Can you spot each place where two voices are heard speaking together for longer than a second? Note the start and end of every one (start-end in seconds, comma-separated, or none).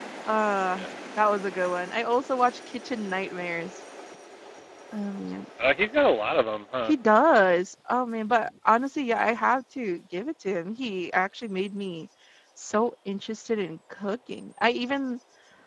none